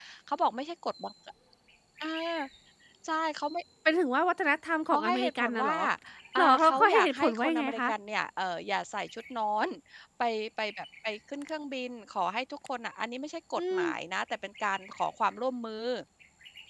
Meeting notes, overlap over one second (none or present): present